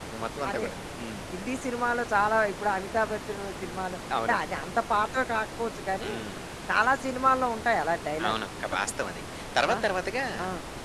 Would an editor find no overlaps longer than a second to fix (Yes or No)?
Yes